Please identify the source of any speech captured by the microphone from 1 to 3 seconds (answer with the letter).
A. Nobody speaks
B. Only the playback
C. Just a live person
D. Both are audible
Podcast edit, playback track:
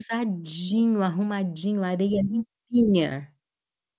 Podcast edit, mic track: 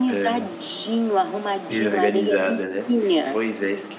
D